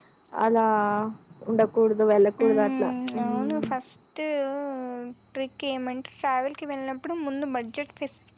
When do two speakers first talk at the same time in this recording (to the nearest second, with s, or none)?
2 s